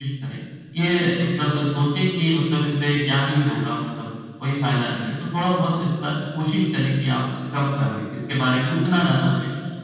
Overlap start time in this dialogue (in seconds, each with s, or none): none